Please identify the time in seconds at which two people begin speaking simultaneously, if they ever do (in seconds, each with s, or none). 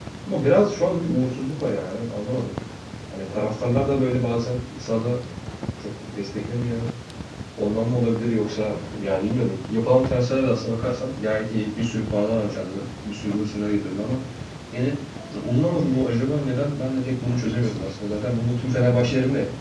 none